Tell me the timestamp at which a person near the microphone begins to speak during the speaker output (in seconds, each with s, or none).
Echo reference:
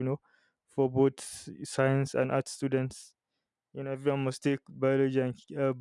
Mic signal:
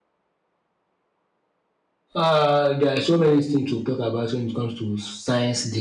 2.2 s